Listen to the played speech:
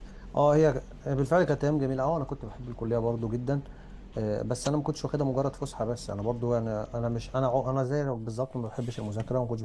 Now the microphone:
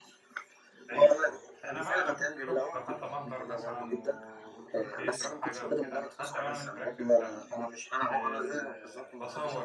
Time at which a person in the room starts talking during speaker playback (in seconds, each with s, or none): 0.9 s